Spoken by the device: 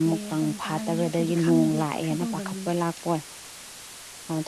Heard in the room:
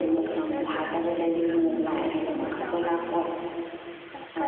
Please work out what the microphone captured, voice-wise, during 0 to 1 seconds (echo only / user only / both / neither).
both